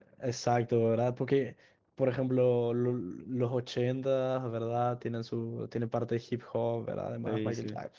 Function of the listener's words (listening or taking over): listening